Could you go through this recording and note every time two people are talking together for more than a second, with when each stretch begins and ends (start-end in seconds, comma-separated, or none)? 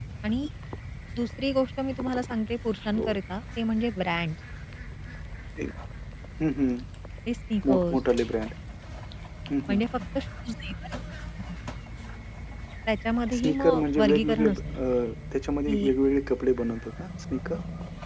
13.3-14.6